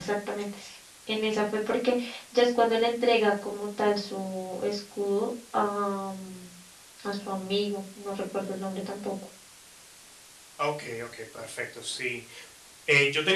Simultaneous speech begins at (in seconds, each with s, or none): none